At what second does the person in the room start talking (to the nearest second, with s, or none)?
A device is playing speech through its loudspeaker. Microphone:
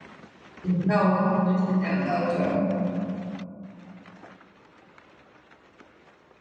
1 s